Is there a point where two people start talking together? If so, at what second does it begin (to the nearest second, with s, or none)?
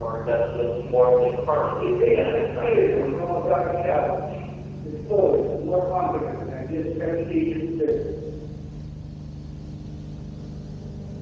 2 s